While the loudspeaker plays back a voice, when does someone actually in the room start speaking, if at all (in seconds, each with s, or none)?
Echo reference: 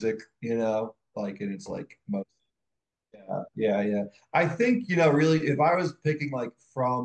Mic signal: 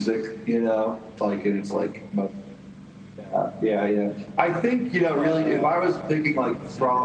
5.1 s